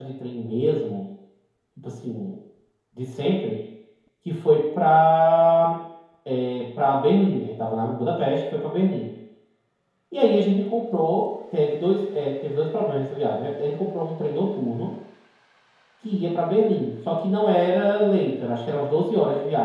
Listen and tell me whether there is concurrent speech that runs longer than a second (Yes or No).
No